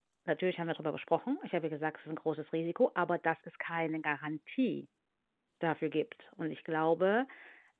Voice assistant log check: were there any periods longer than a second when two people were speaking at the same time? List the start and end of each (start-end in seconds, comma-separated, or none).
none